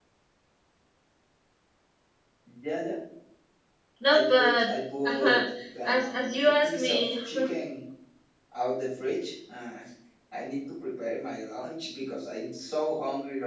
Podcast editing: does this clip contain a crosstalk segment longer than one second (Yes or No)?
Yes